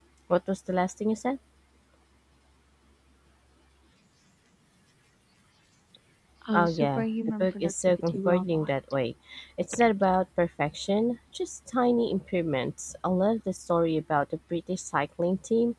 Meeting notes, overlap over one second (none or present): present